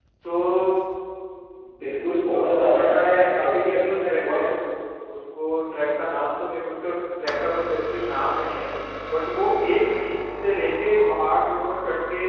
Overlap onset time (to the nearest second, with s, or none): 2 s